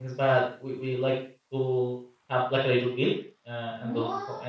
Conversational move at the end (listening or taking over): listening